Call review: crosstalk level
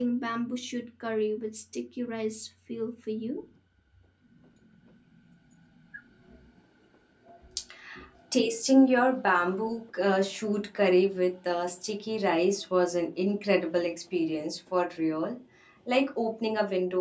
none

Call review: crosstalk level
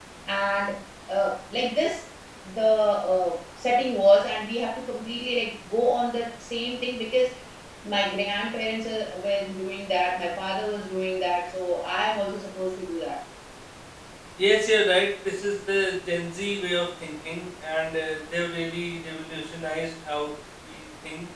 none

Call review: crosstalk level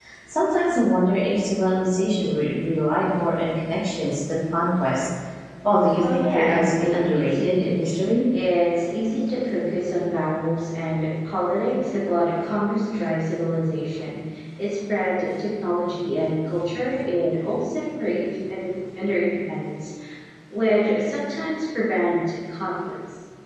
present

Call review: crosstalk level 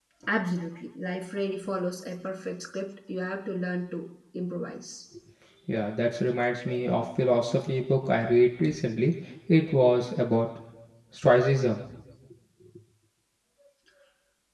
none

